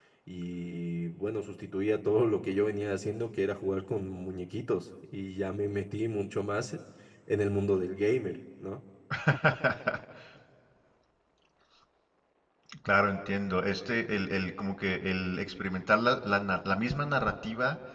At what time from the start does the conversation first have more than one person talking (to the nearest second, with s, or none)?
none